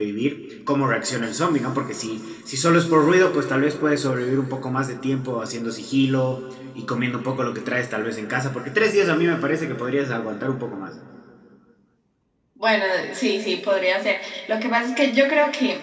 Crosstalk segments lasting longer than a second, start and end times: none

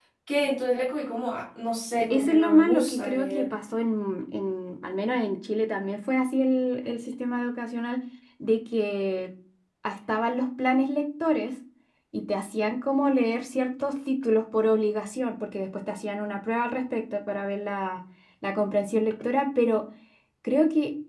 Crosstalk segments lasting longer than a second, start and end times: 2.0-3.5

